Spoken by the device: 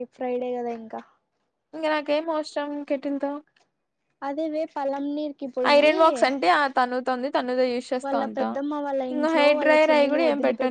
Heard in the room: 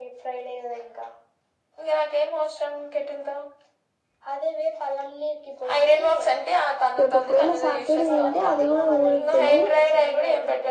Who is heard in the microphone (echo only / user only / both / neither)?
both